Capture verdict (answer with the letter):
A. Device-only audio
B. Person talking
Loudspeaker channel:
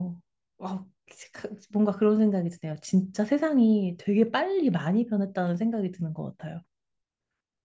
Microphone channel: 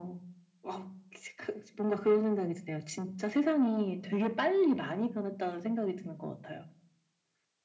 A